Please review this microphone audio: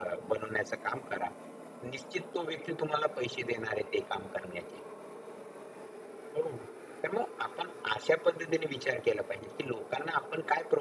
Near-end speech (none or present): none